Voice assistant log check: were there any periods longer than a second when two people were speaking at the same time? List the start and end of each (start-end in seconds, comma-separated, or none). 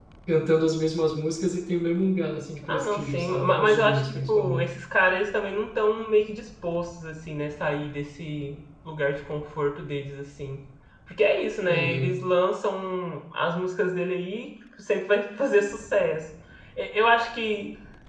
2.7-4.7